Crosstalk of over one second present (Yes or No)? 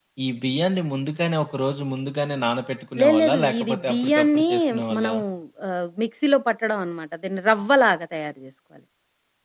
Yes